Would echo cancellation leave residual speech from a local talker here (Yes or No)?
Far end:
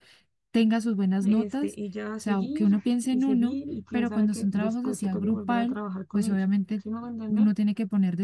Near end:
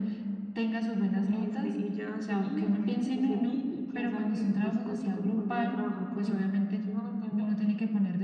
No